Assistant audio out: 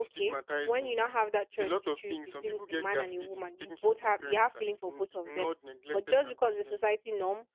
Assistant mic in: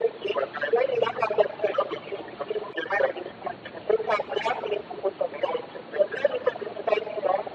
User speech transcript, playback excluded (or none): none